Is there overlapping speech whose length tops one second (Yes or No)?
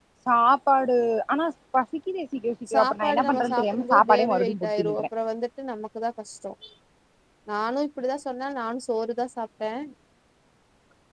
Yes